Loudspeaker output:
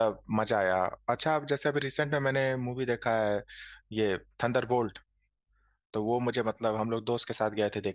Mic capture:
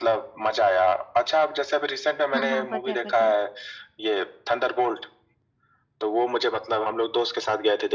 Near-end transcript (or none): हाँ हाँ पता है पता है